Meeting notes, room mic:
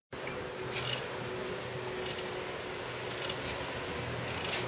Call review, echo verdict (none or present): none